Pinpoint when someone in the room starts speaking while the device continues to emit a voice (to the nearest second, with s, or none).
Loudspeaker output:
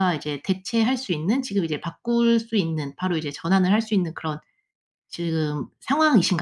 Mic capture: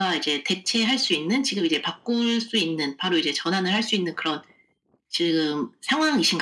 none